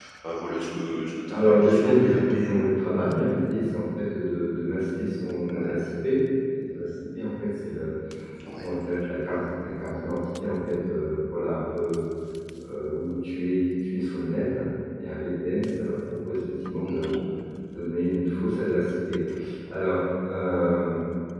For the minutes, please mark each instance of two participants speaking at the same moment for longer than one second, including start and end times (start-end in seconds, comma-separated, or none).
1.3-2.7